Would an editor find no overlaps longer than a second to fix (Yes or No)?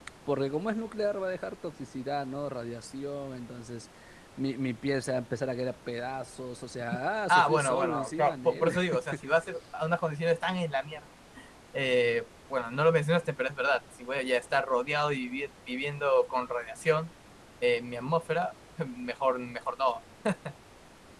No